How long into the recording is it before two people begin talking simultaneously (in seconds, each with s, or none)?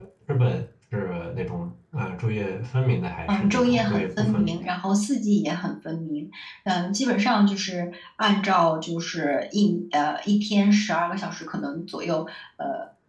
3.3 s